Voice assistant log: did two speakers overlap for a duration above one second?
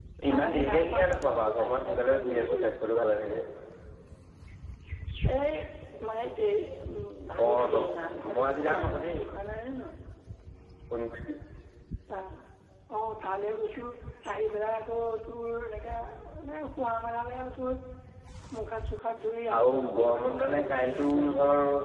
Yes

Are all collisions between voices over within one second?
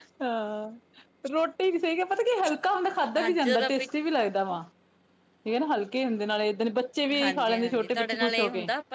No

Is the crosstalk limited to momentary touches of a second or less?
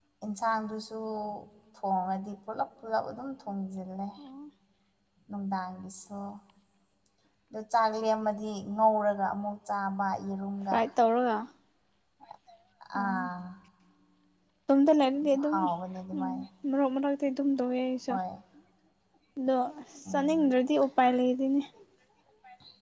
Yes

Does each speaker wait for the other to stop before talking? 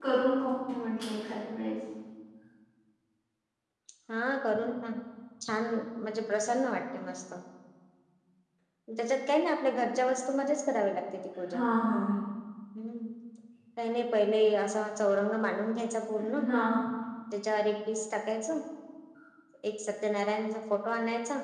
Yes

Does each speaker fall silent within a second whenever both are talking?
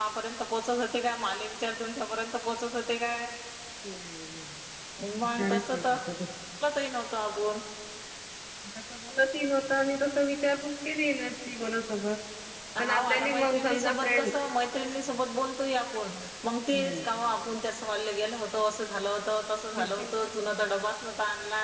No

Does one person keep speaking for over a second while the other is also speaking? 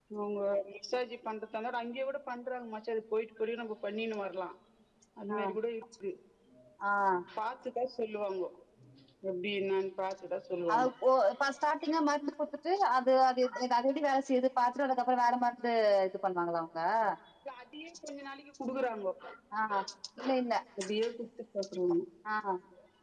No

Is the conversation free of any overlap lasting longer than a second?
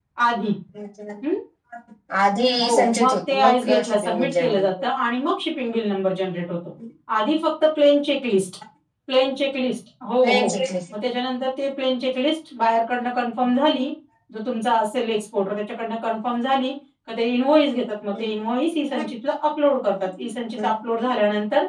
No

